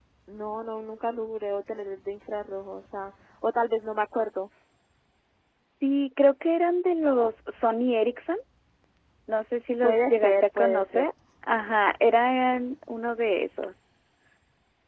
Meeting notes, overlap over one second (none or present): present